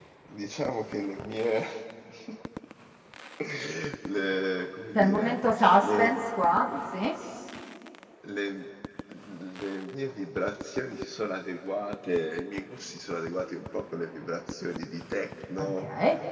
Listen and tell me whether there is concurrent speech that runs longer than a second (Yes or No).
No